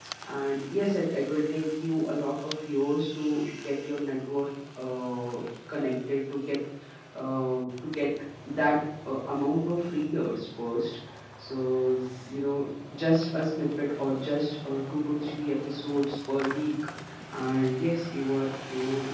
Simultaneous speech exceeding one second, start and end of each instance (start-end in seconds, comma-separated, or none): none